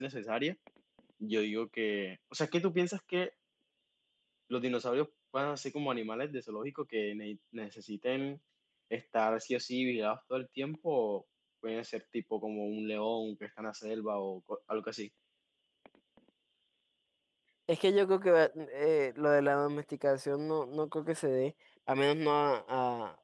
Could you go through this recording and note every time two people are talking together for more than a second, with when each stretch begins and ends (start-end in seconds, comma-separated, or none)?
none